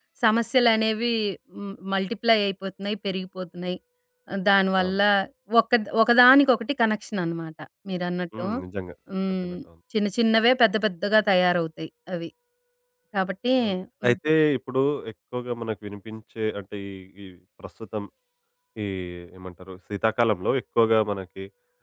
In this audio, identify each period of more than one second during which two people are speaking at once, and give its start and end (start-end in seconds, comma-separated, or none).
none